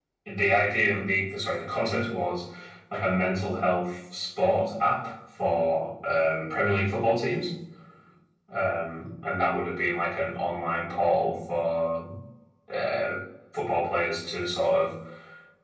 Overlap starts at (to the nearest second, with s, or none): none